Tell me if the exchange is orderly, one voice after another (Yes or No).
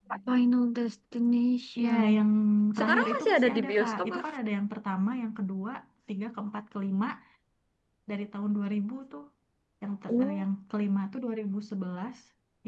No